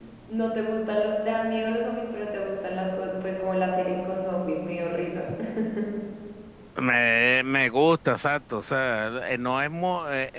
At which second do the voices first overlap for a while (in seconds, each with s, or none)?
none